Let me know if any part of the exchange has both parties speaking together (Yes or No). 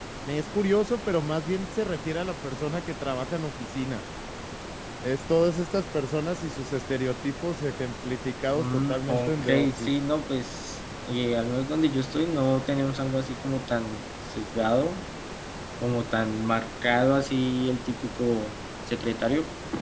Yes